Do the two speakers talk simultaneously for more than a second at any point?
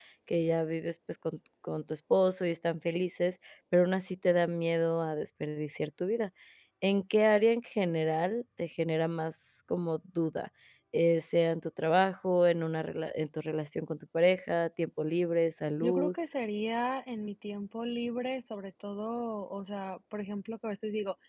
No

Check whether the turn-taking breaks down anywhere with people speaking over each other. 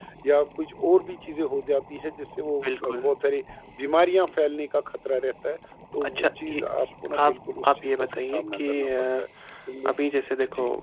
Yes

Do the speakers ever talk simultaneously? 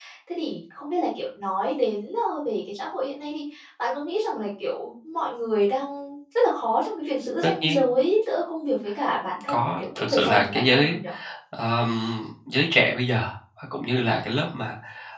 Yes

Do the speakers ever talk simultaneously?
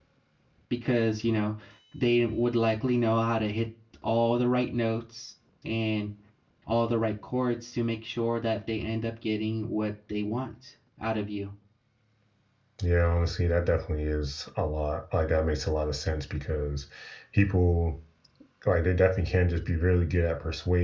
No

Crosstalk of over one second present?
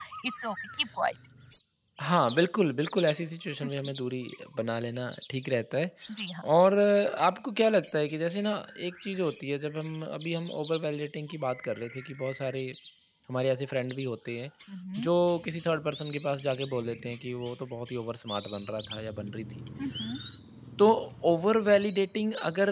No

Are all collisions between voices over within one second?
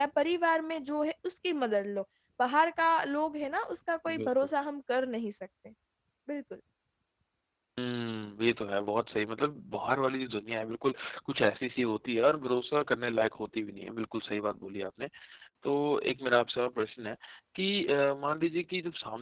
Yes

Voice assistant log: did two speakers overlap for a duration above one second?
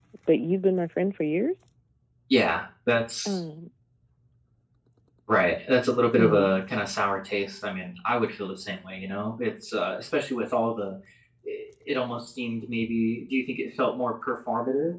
No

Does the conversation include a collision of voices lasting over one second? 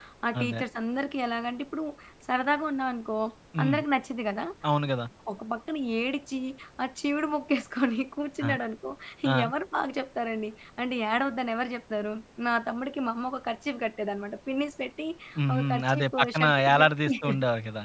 Yes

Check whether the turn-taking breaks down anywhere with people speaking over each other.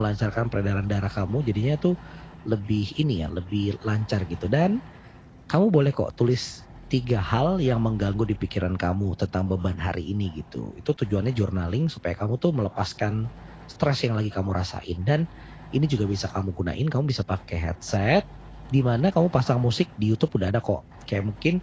No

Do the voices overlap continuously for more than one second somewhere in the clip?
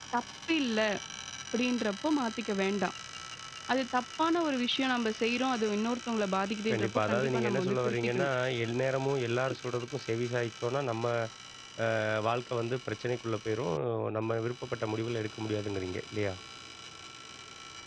Yes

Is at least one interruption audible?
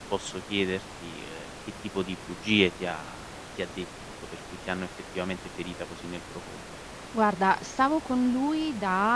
No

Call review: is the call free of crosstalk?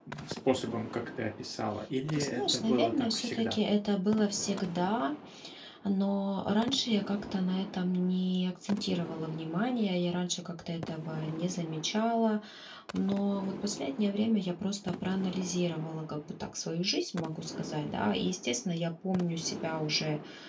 No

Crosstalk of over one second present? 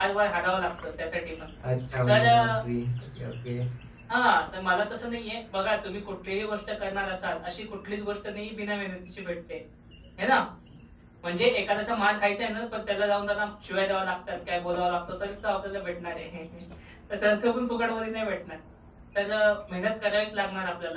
No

